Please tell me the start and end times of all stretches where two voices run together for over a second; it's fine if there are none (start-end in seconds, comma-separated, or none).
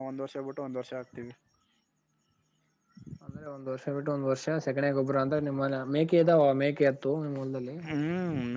none